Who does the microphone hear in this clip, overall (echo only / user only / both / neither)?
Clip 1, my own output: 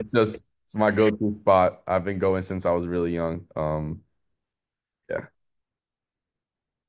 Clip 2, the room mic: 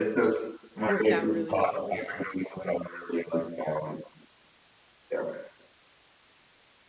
both